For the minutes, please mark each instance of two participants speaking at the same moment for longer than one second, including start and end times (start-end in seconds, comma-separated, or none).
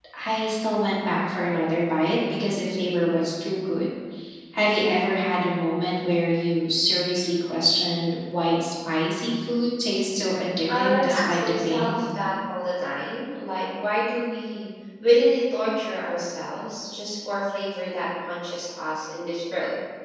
10.8-12.0